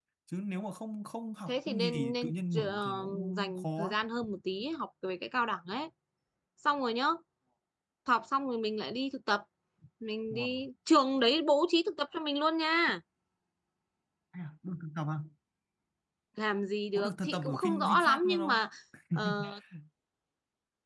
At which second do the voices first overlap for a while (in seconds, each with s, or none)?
1.5 s